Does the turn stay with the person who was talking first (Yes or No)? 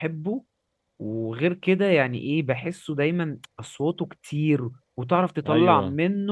Yes